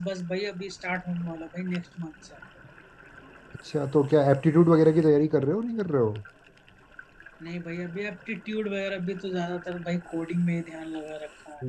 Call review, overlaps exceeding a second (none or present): none